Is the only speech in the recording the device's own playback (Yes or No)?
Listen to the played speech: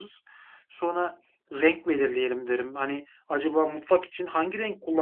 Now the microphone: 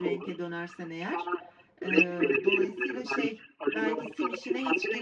No